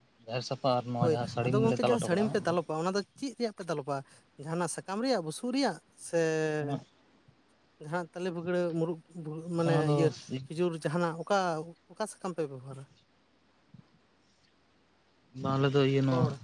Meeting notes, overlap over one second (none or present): present